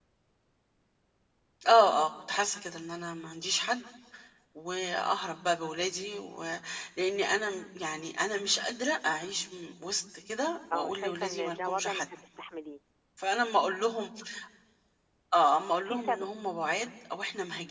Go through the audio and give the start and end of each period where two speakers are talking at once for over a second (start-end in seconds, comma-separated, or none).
10.7-12.1